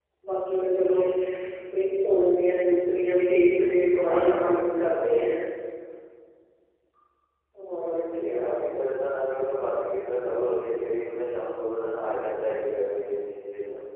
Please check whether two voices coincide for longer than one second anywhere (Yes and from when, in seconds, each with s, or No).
Yes, from 4.0 s